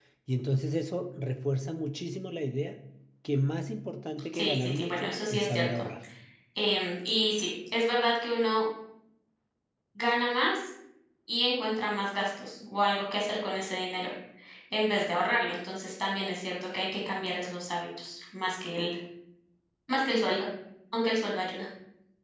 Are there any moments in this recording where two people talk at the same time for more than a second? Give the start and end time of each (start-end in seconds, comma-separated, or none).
4.3-5.8